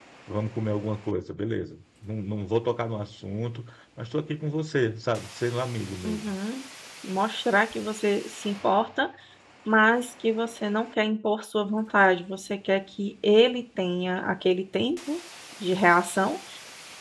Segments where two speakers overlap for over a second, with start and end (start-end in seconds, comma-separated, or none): none